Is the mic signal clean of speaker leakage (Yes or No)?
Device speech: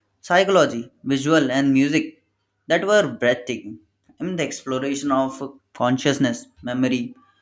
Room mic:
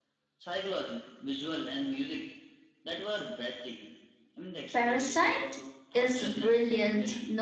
No